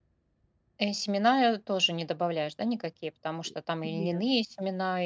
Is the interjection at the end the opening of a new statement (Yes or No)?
No